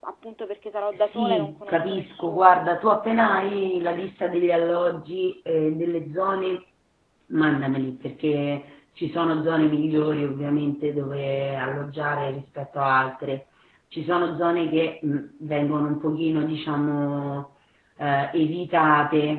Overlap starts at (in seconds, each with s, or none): 0.9 s